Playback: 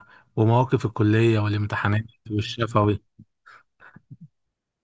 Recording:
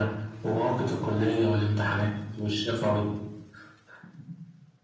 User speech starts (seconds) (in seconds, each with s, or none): none